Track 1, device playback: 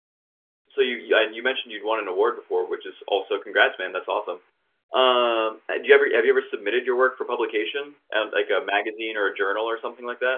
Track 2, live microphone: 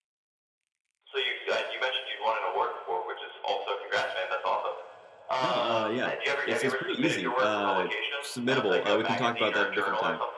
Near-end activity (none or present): present